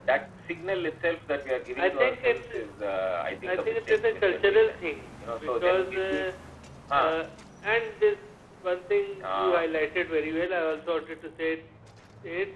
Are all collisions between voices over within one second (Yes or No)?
No